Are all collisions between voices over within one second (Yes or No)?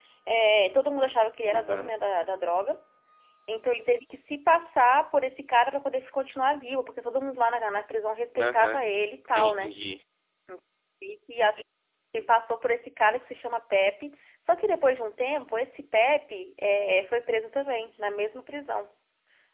Yes